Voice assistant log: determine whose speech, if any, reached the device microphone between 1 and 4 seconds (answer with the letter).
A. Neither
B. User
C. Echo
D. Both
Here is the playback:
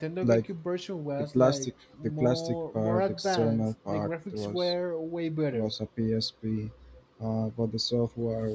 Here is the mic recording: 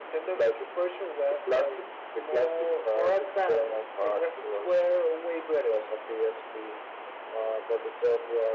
C